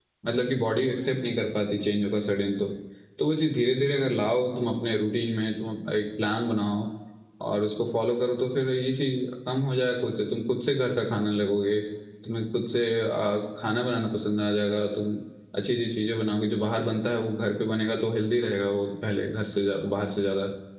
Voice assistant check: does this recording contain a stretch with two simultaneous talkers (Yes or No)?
No